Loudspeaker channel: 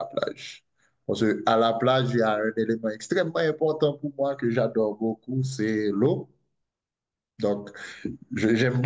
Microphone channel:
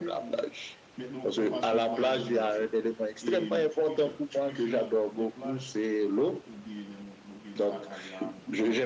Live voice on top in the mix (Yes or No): No